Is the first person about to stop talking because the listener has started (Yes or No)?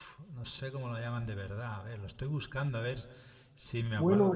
Yes